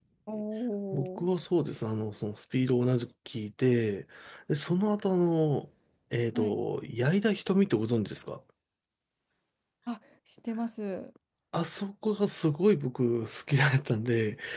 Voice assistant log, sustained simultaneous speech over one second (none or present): none